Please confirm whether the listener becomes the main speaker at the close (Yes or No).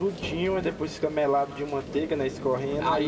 Yes